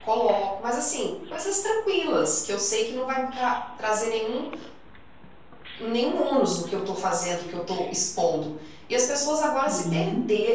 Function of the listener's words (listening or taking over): listening